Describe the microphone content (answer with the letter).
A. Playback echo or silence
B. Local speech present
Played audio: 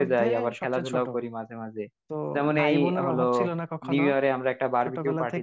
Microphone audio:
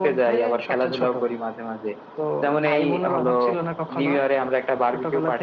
A